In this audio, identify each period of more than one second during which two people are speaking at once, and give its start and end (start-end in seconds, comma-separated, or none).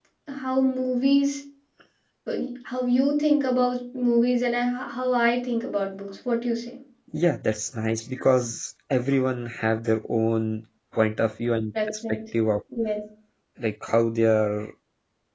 none